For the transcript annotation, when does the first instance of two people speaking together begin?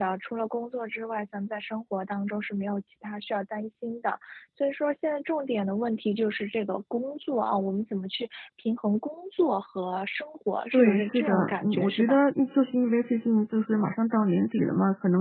11 s

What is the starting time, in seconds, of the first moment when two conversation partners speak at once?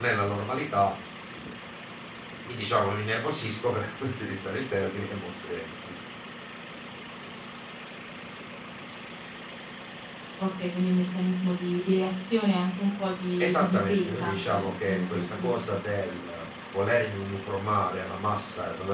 13 s

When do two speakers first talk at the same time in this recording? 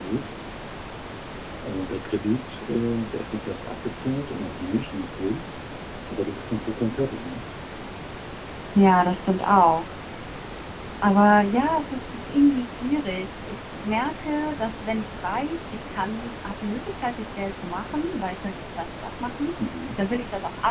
none

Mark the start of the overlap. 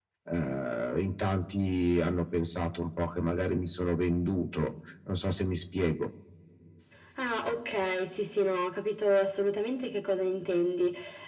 none

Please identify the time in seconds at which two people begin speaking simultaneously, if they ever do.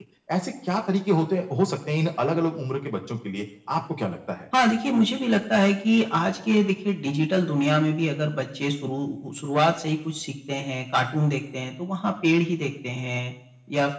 none

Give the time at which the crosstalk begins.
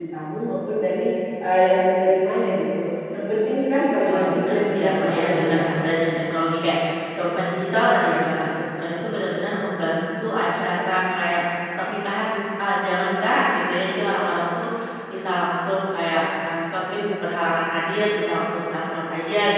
4 s

